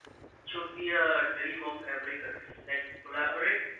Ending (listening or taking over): listening